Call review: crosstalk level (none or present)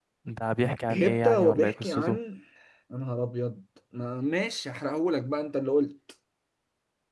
present